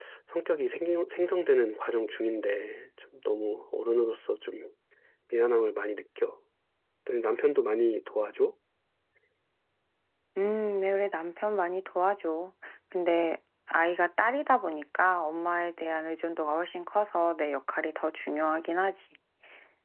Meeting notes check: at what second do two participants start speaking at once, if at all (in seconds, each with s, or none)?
none